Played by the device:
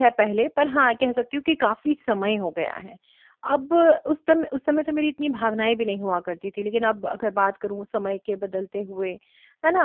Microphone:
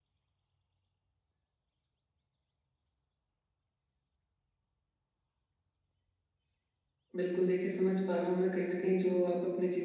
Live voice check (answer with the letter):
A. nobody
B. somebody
B